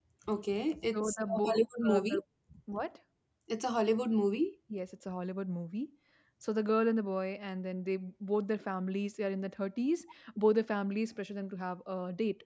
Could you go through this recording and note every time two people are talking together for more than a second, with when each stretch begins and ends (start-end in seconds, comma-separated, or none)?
0.9-2.2